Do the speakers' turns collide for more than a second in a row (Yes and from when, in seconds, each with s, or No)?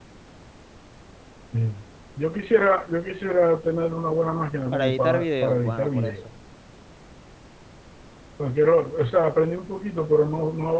Yes, from 4.7 s